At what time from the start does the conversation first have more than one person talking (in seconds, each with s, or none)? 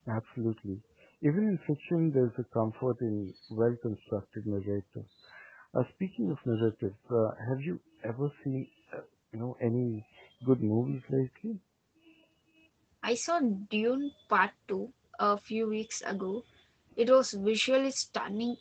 none